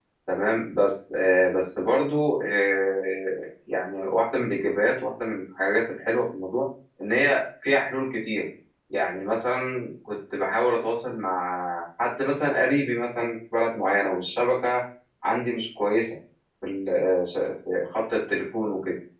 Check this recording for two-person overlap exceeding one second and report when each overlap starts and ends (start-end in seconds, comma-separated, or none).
none